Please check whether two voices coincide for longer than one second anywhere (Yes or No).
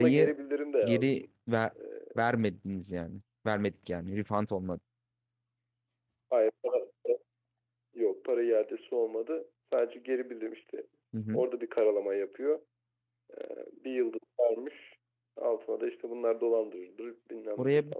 No